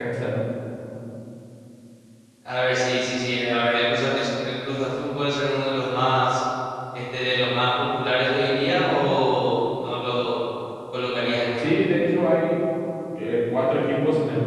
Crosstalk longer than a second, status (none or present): none